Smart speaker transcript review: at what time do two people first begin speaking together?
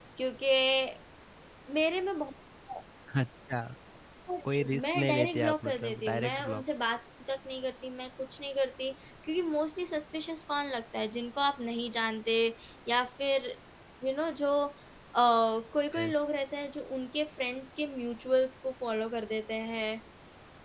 5 s

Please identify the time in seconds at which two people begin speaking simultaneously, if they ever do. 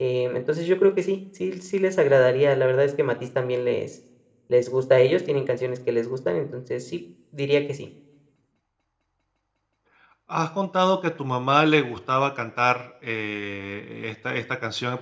none

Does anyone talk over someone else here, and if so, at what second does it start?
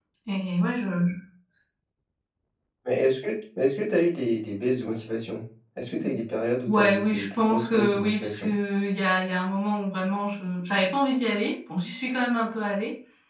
7 s

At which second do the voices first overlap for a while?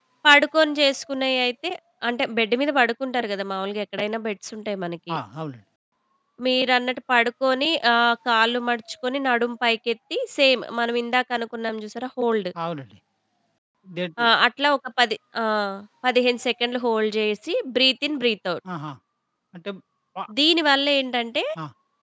none

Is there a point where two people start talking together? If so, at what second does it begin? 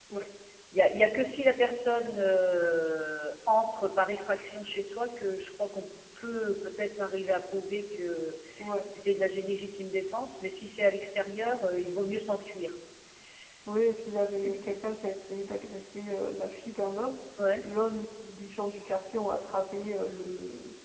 none

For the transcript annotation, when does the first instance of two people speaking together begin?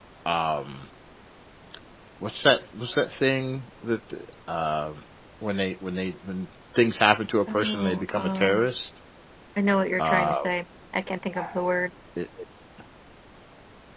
7 s

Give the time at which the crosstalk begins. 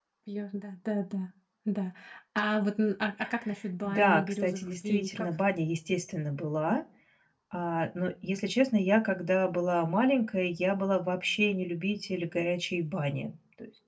4 s

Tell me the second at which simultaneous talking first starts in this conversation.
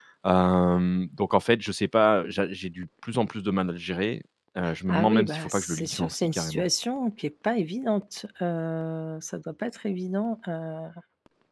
5 s

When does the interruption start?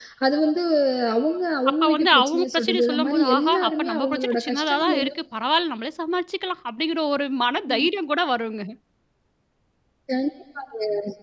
2 s

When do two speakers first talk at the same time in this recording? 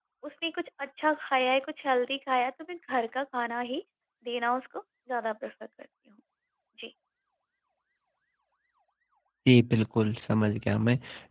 none

